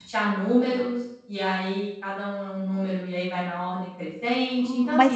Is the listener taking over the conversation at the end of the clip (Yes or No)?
Yes